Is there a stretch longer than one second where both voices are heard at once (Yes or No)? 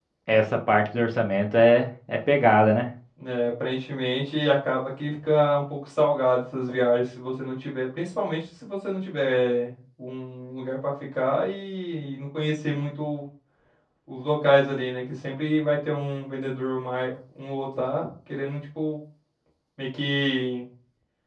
No